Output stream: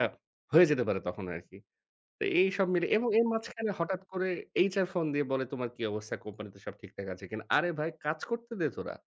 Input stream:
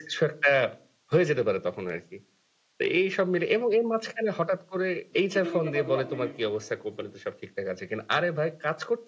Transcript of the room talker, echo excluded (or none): দুঃখজনক ব্যাপার হলো, আপনি